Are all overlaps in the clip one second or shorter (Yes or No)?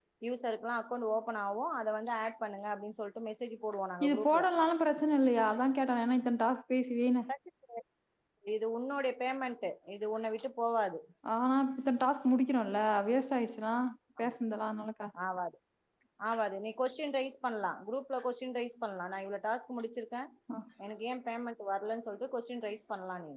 Yes